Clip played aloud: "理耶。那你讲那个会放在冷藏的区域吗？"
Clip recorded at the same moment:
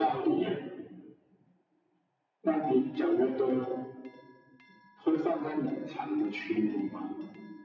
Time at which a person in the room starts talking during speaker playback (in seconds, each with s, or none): none